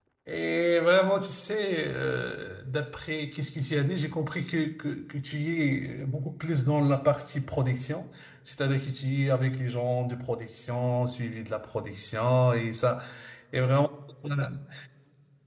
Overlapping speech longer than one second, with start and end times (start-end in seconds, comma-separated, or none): none